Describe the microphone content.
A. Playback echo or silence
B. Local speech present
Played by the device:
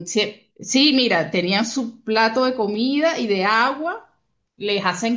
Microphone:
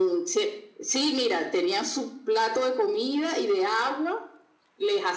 A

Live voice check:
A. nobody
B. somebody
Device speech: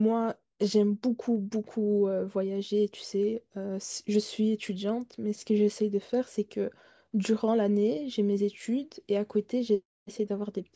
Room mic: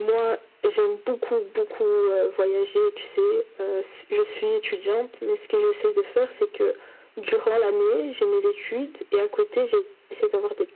A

